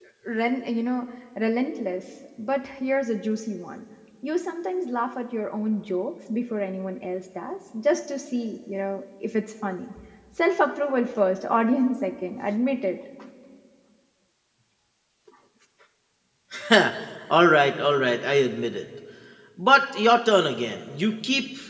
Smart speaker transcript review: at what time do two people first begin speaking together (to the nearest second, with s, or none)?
none